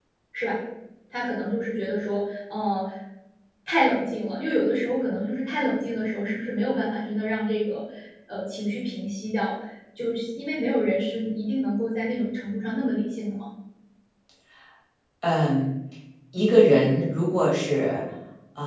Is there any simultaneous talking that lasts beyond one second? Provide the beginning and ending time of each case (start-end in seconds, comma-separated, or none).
none